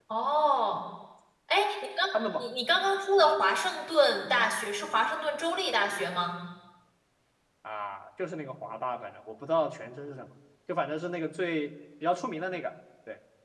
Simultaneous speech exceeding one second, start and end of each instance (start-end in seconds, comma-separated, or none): none